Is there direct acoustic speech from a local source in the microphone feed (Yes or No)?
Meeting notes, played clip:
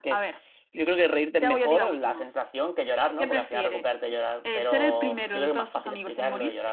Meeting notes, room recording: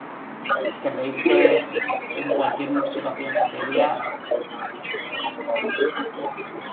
Yes